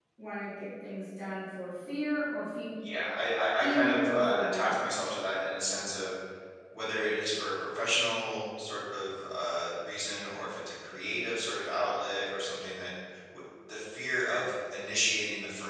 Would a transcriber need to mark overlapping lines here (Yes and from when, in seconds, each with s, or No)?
Yes, from 3.6 s